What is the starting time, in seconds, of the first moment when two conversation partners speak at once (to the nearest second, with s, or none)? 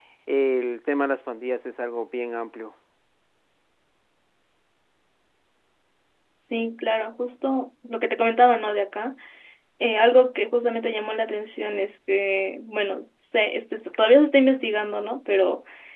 none